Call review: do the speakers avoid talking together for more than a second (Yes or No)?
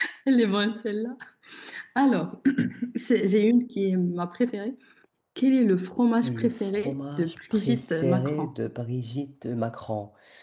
No